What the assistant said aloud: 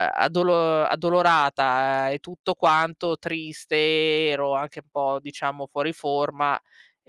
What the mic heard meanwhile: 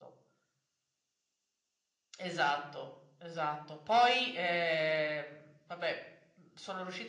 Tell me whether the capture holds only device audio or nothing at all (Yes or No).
No